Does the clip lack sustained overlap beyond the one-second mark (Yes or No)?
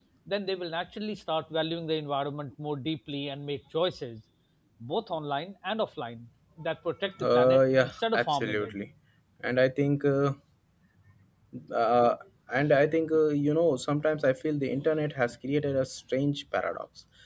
No